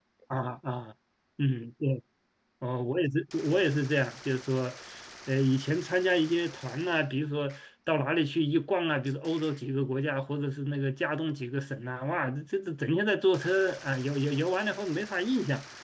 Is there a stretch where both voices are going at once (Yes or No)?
No